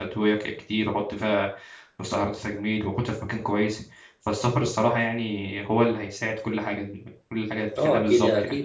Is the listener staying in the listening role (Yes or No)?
No